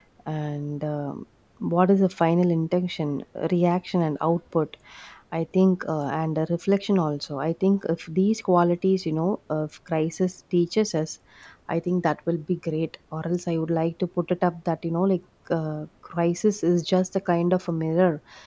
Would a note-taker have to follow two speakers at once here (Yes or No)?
No